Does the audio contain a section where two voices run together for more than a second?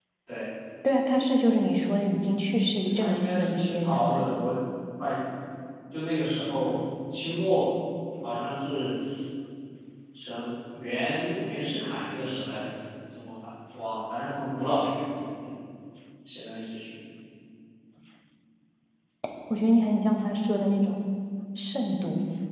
Yes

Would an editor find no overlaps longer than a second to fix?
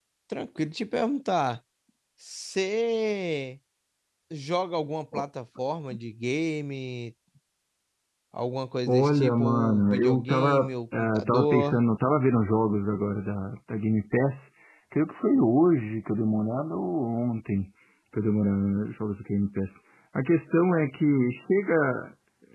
No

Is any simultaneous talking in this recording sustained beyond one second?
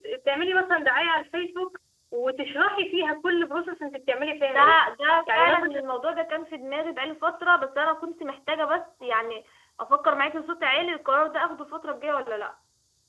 No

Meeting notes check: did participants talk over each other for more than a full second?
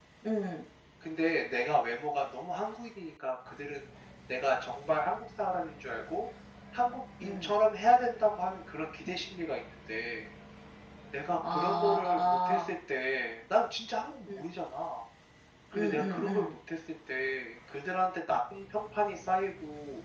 Yes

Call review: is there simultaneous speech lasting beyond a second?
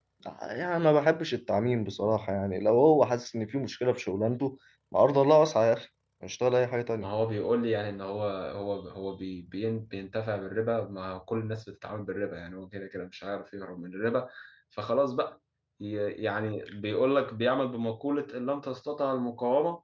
No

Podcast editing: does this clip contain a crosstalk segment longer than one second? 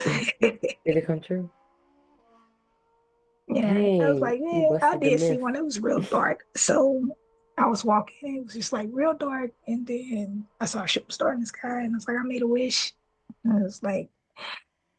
Yes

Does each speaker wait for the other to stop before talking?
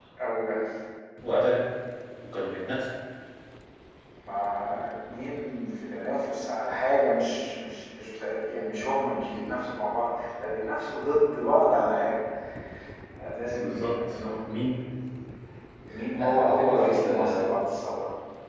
No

